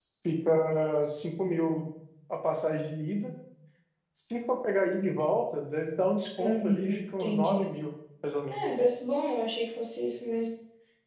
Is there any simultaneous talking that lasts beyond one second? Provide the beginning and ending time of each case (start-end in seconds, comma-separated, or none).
6.4-7.6